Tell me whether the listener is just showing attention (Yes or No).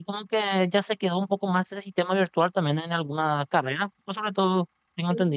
No